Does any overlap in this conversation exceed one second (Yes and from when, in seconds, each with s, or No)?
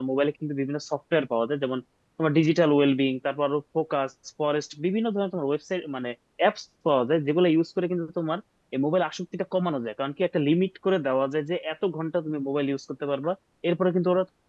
No